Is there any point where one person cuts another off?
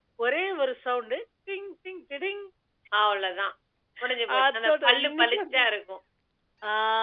Yes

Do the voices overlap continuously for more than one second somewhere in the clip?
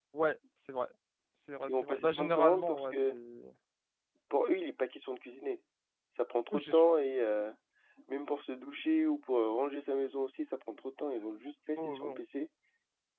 Yes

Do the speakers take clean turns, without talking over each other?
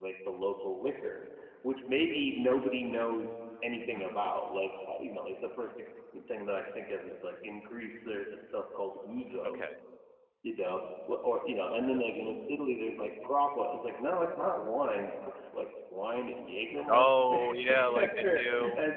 No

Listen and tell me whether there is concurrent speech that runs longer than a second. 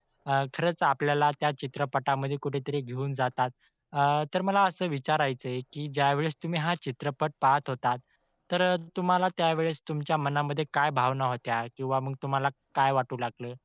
No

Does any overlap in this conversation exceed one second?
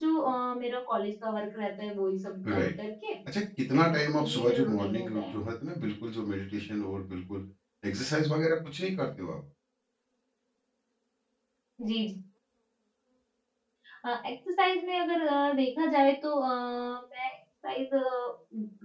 Yes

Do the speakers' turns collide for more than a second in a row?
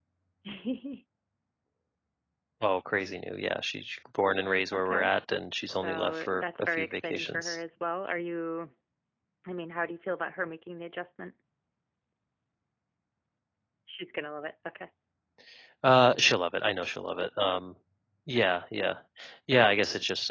Yes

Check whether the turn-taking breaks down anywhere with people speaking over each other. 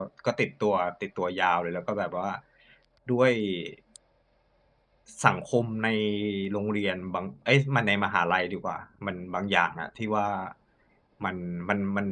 No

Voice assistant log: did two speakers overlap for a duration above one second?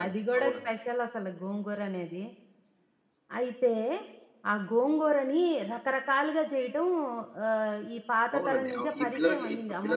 Yes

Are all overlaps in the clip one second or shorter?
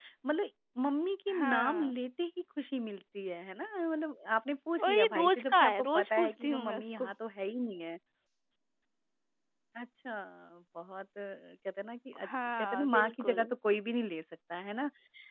No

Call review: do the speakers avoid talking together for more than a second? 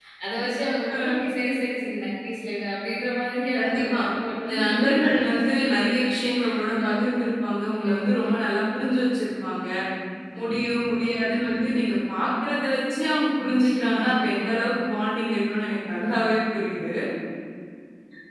No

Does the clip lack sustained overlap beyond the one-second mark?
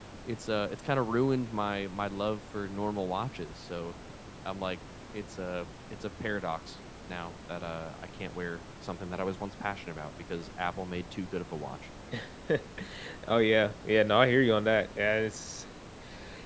Yes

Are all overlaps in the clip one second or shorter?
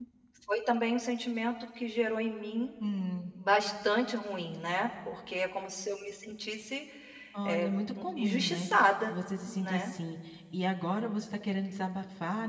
No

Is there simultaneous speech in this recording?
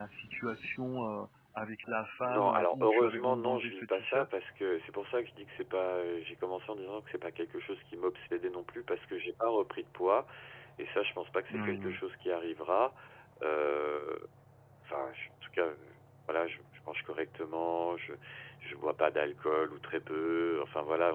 Yes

